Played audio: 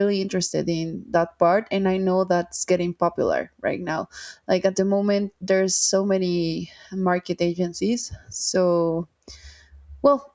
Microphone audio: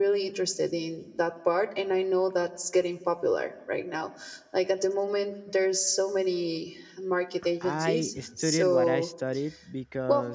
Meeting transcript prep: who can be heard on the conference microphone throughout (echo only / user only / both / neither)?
both